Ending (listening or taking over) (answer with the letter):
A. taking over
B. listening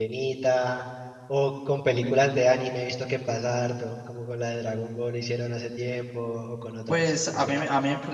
A